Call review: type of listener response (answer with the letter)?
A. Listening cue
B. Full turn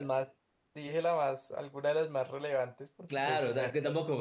B